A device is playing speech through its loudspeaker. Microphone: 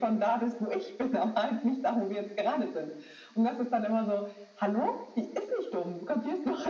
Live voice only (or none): none